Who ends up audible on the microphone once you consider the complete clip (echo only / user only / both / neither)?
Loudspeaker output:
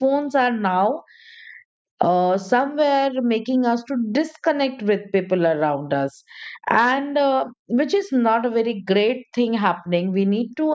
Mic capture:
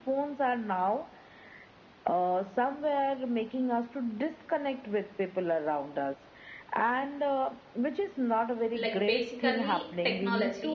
both